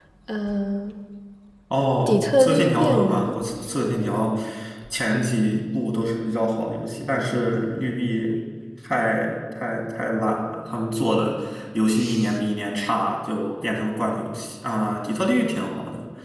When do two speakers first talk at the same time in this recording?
2 s

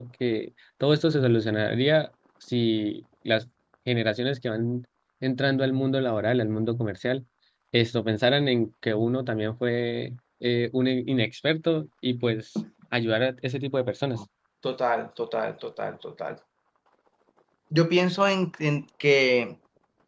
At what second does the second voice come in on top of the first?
none

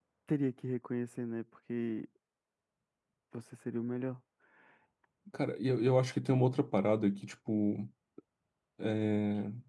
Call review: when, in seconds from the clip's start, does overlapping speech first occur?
none

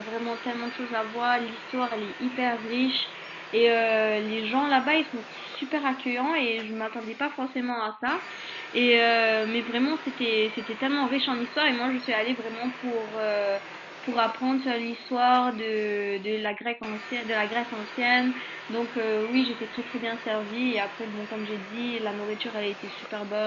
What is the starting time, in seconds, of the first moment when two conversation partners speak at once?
none

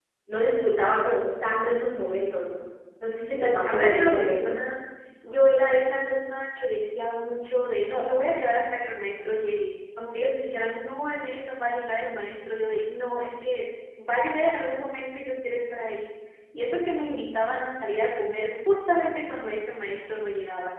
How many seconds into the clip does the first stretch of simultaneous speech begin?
3 s

